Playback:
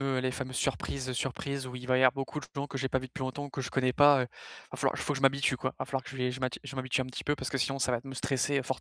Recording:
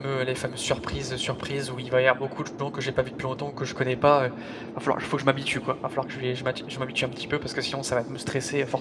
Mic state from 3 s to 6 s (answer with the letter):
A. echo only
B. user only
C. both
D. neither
A